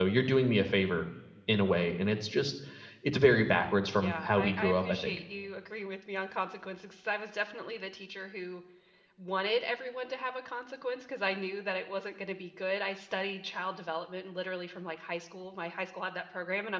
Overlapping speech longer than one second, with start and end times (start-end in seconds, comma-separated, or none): 3.9-5.2